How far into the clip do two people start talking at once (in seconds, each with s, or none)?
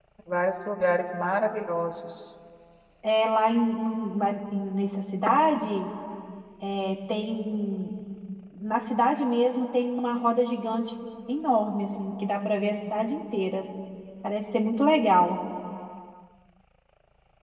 none